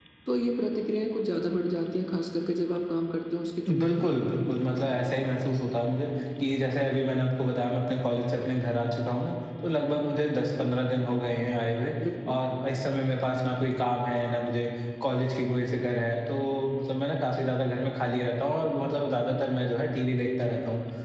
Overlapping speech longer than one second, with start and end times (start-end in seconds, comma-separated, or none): none